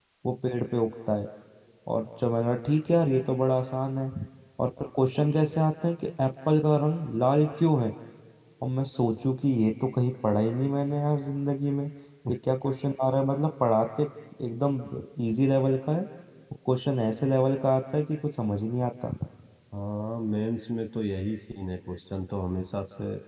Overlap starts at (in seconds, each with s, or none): none